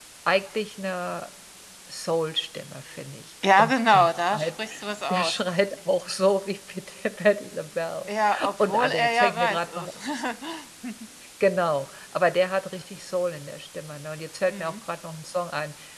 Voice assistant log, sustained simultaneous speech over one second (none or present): present